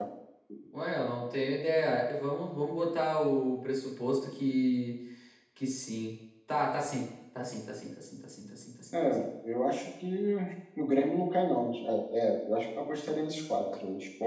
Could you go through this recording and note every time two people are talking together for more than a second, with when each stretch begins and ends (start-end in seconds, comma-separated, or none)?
none